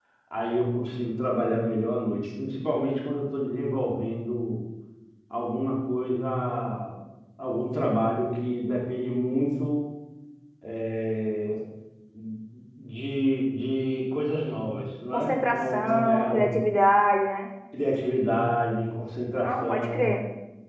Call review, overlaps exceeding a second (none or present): present